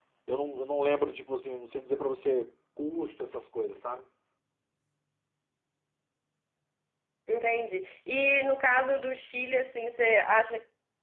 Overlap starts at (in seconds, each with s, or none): none